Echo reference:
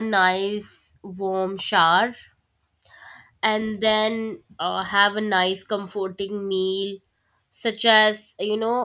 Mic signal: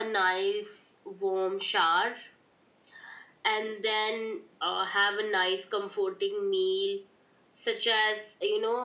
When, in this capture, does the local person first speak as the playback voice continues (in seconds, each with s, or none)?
none